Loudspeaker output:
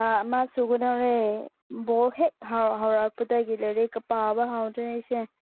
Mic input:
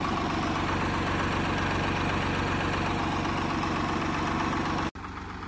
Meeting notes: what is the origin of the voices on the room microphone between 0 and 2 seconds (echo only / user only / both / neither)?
neither